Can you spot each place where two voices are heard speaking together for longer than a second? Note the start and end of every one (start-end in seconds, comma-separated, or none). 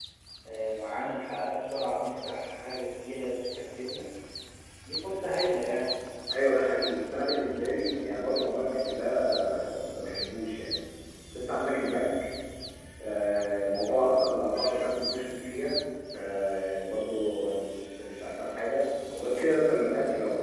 none